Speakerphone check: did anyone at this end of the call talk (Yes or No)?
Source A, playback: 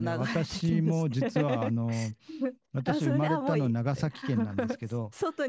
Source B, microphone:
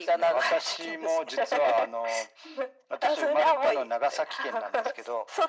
No